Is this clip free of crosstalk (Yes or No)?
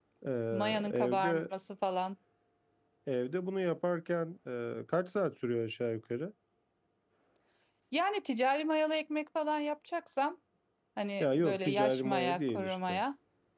No